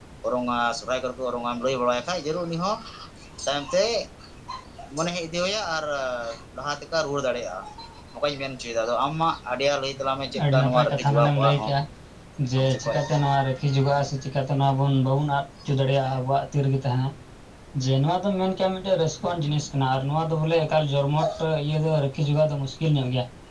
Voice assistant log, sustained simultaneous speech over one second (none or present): present